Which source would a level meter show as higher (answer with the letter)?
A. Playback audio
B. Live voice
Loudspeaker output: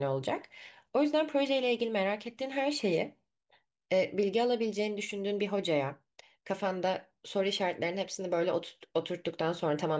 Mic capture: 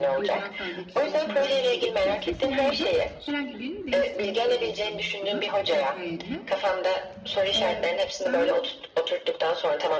A